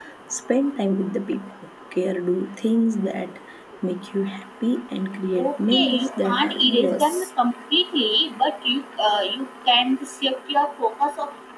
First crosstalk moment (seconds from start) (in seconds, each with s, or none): 5.4 s